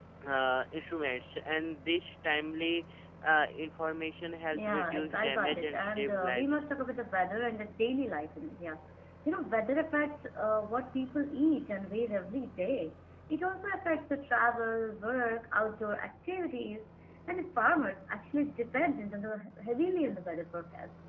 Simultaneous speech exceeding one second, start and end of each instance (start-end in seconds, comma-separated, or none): 4.5-6.6